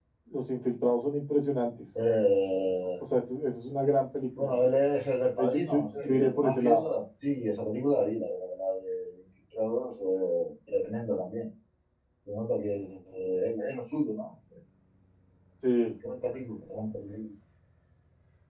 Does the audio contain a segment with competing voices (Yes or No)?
Yes